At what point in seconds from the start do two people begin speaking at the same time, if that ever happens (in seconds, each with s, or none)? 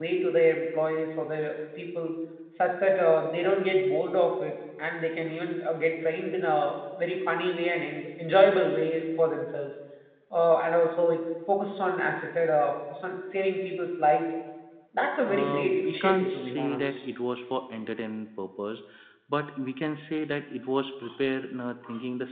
15.2 s